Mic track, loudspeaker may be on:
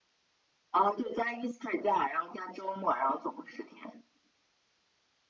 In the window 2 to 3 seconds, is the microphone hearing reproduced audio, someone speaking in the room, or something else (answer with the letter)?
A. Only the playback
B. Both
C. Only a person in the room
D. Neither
A